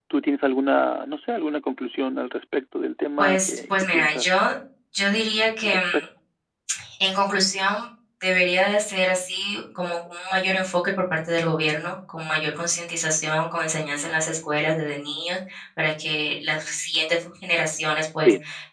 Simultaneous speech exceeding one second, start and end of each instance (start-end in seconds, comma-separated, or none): 3.2-4.4